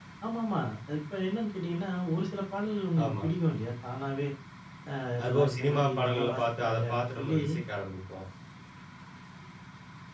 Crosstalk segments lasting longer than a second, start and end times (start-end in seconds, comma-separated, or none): 5.2-7.4